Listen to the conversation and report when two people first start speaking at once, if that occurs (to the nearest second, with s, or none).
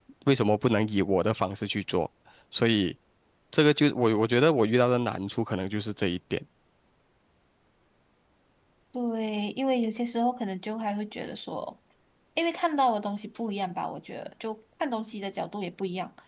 none